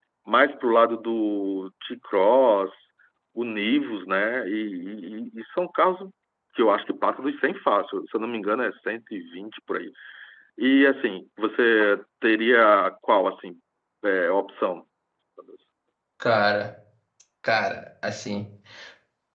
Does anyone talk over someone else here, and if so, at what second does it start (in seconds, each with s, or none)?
none